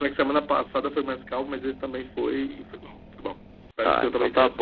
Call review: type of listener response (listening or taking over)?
taking over